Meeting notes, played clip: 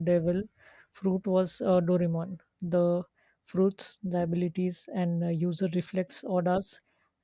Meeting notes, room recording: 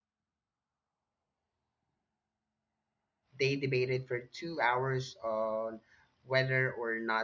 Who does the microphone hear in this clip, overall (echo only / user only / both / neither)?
user only